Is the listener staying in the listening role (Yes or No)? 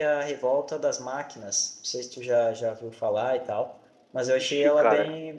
Yes